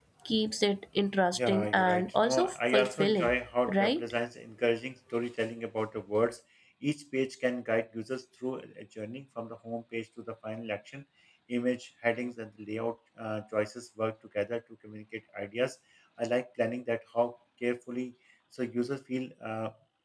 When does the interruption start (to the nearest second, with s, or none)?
1 s